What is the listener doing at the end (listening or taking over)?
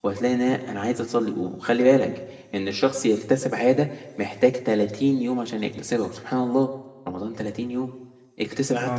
listening